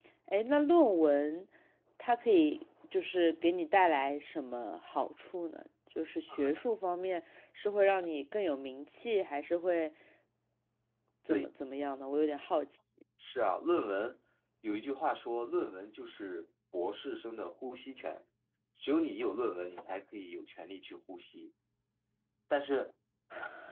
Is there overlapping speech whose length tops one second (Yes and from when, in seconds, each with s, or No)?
No